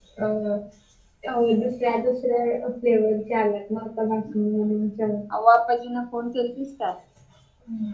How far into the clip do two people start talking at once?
none

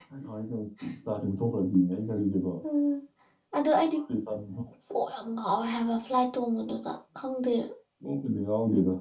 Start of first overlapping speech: none

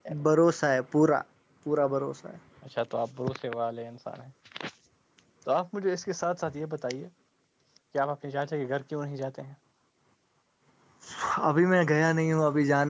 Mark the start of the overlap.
none

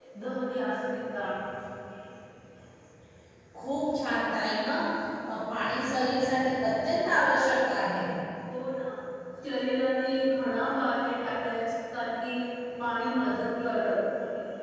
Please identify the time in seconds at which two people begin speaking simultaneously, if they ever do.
none

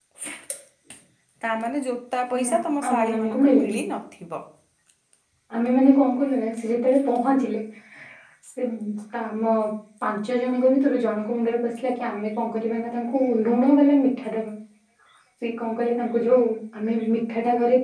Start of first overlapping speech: 2.3 s

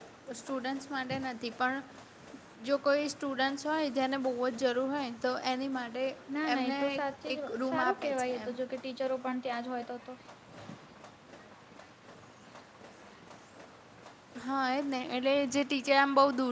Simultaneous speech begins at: 6.5 s

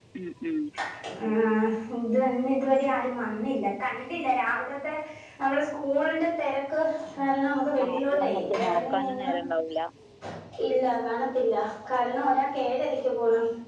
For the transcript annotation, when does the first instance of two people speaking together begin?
7.8 s

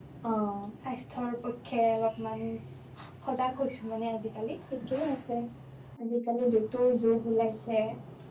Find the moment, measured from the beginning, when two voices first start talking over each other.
none

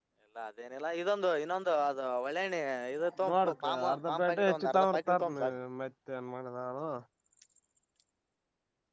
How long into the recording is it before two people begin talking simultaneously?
3.2 s

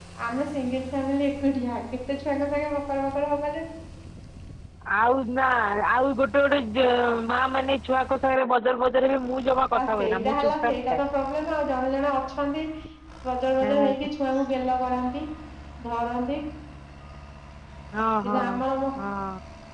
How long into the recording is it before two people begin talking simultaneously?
9.8 s

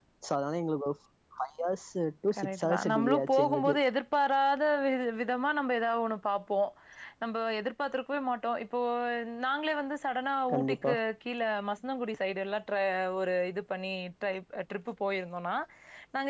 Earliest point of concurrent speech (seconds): 2.3 s

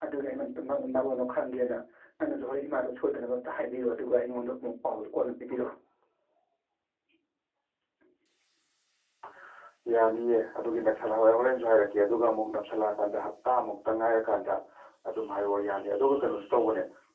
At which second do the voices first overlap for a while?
none

